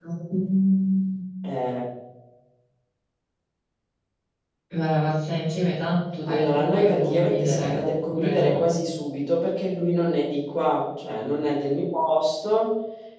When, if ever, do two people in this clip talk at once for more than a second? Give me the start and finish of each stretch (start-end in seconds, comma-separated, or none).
6.3-8.7